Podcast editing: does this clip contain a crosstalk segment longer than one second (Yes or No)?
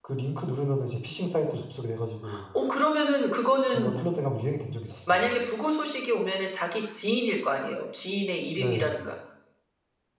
No